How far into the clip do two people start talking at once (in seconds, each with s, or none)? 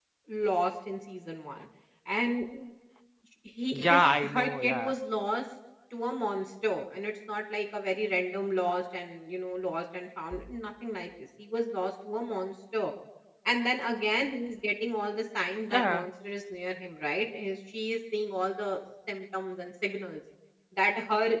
3.7 s